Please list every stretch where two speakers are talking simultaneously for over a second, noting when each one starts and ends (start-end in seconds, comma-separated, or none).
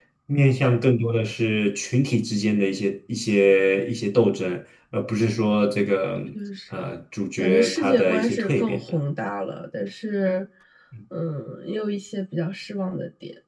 7.4-8.9